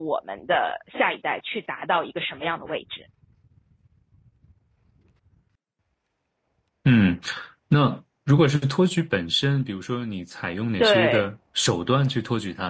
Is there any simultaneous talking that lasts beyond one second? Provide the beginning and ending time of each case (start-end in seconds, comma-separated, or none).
none